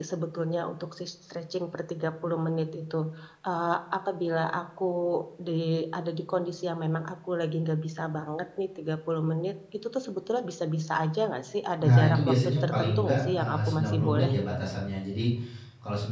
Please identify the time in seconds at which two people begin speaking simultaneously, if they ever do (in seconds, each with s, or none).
11.8 s